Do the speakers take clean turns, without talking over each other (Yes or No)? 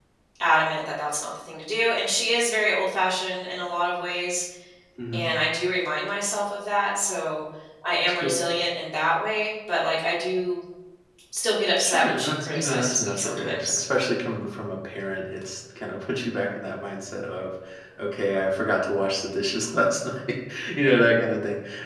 No